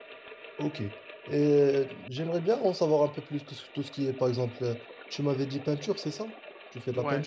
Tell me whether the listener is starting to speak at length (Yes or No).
Yes